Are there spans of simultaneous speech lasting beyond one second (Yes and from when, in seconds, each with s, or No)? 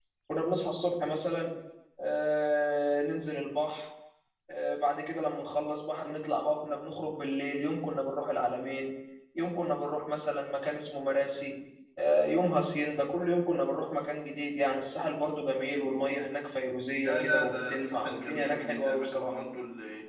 Yes, from 17.0 s